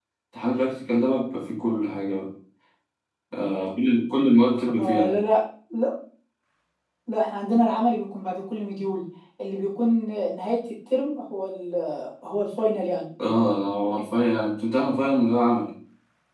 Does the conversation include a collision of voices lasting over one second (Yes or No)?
No